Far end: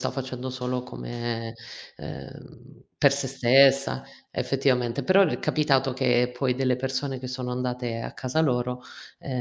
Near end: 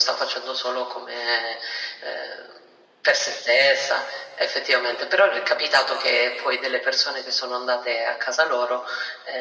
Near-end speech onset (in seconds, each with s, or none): none